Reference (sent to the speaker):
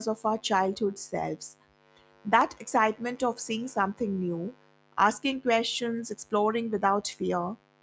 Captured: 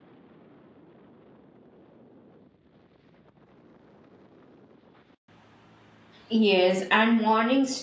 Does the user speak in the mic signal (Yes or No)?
Yes